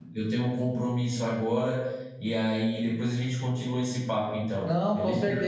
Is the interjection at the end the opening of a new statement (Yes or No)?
Yes